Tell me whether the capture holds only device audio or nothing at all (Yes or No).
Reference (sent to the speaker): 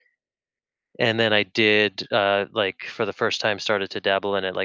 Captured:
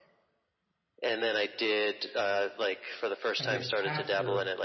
No